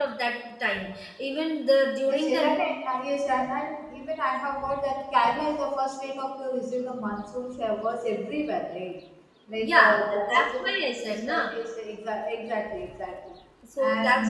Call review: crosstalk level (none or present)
present